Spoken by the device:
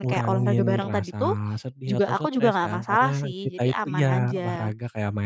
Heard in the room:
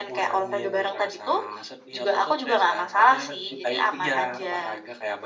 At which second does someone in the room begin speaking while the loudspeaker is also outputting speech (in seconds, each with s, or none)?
none